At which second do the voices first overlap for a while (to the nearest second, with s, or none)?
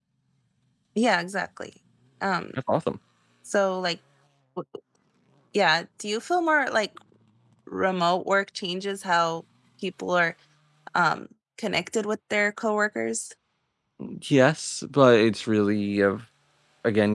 none